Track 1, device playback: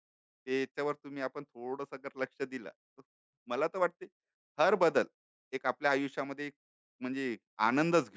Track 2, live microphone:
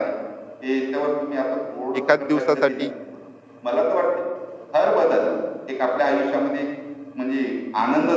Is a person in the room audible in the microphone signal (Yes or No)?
Yes